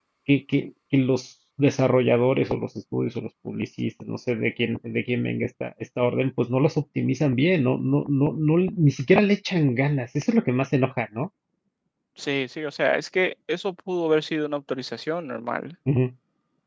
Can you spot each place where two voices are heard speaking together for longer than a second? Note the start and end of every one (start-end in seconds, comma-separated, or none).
none